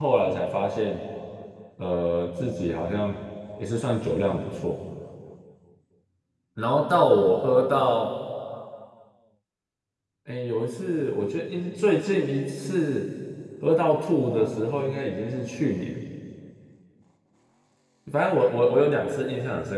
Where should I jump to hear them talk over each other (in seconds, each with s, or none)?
none